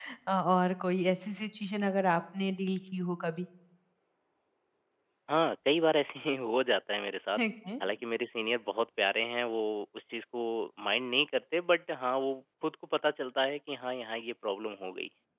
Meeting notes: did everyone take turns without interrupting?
Yes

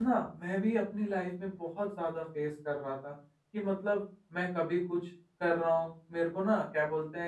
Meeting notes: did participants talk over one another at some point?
No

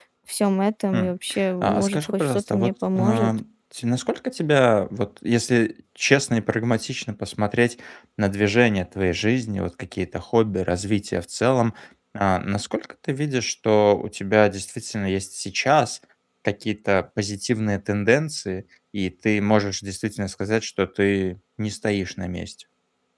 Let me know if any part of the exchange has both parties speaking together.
Yes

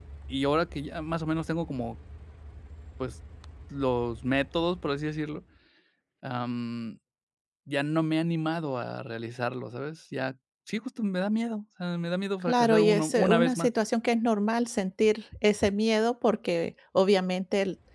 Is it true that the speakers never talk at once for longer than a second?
No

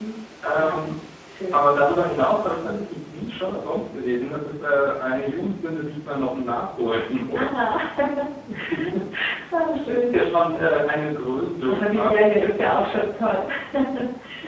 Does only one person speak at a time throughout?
No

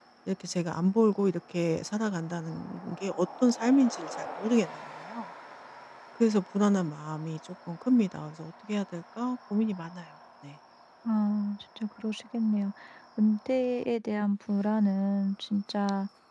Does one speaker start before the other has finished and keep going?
No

